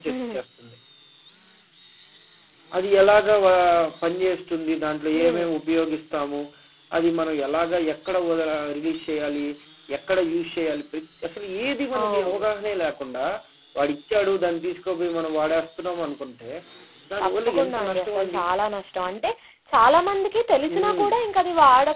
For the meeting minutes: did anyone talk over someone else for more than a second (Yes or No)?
Yes